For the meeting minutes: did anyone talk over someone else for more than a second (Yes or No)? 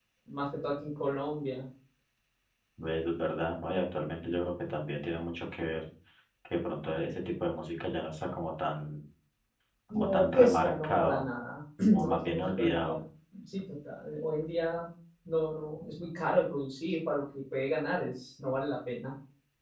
Yes